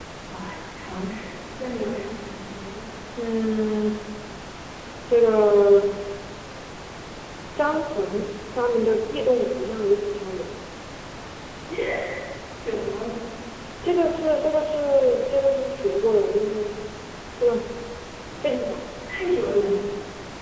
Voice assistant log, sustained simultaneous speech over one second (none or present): none